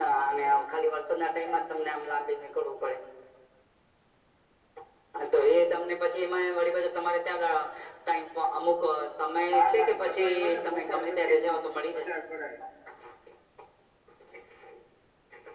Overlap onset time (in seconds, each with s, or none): 9.5 s